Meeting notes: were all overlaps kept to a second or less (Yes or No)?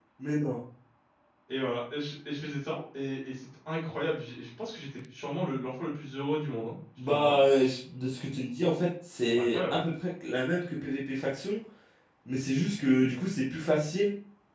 Yes